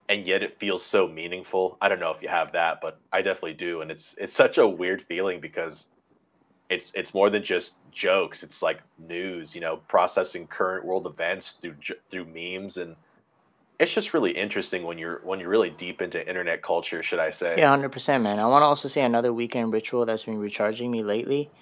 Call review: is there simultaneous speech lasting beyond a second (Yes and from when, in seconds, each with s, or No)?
No